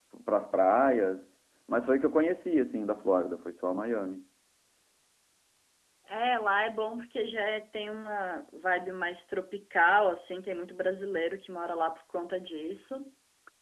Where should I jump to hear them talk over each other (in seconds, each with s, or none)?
none